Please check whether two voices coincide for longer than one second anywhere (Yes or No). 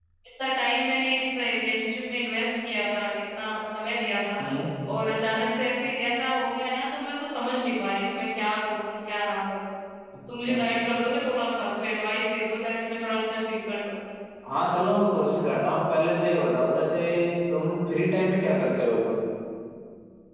No